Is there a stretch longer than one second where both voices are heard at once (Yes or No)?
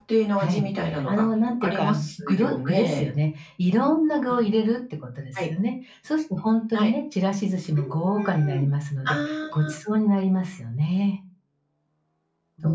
Yes